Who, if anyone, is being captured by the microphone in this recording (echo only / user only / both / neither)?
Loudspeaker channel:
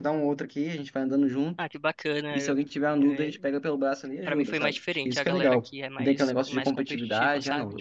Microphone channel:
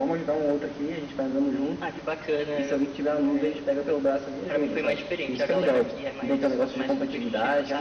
echo only